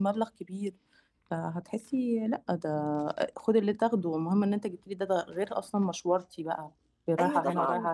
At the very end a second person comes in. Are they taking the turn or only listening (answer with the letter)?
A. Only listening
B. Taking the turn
B